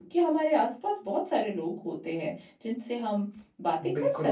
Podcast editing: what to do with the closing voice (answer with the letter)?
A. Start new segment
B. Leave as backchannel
A